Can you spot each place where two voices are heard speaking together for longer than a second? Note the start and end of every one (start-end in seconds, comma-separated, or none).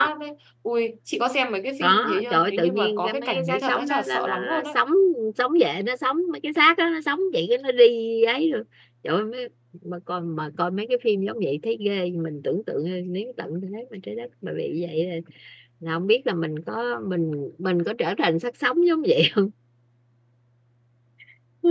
1.8-4.8